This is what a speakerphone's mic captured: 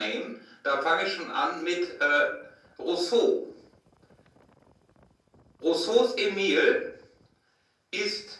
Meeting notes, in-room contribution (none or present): none